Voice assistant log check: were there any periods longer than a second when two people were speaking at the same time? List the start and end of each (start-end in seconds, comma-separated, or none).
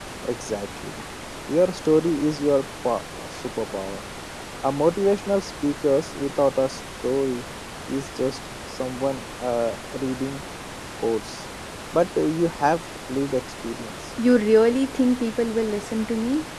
none